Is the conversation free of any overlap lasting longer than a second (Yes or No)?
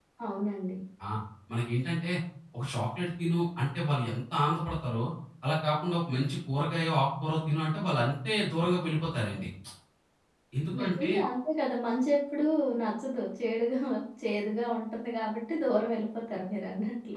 Yes